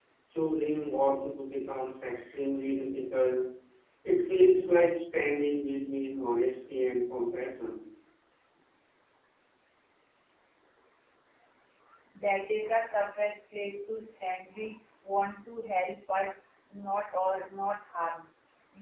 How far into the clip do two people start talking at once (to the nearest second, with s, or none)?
none